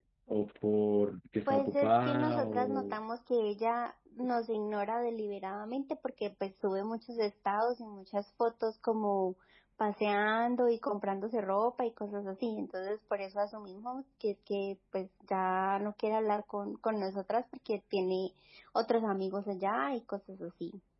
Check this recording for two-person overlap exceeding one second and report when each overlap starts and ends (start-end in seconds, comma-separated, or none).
1.5-3.0